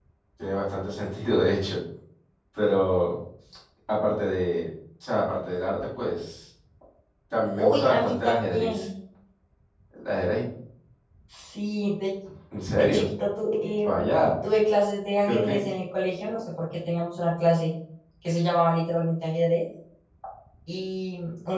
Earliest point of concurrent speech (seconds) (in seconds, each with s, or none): 7.6 s